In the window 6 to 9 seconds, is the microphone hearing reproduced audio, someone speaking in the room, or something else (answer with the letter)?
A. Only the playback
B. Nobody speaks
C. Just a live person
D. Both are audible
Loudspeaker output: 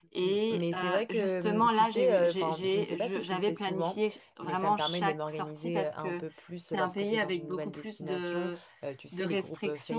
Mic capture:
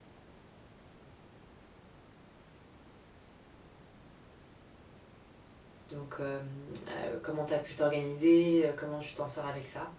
C